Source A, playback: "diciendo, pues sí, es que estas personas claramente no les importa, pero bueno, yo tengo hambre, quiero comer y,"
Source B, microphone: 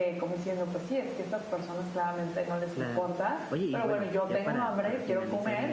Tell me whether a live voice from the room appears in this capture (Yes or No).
Yes